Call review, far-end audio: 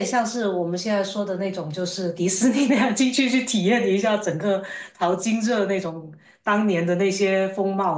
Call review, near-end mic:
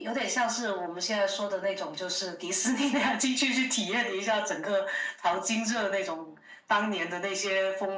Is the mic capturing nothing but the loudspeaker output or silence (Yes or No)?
Yes